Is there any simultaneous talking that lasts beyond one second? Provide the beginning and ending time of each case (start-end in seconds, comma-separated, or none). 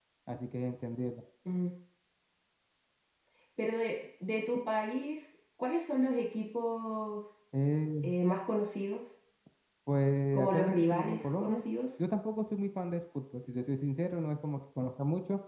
10.3-11.6